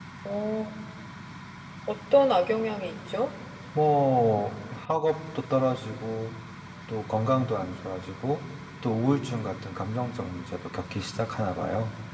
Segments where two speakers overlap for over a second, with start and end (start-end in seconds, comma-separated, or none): none